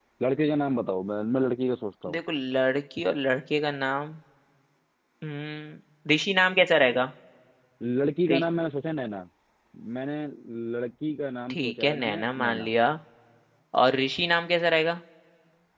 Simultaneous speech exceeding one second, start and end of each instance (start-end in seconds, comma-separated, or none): 11.5-12.7